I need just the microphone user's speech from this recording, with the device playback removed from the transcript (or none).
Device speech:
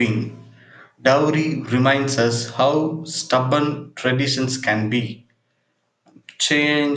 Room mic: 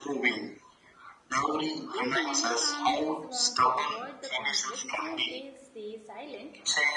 Like many families want to avoid the conflict, so they stay silent.